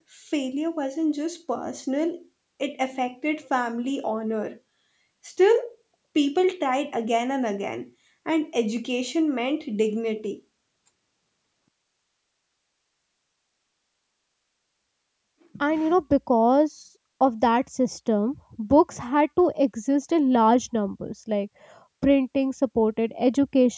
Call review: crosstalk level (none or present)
none